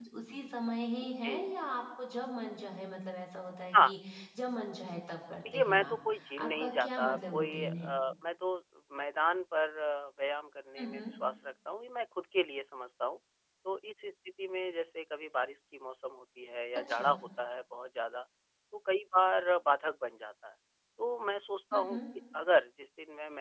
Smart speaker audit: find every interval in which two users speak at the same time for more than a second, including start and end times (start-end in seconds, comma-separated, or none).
6.4-7.9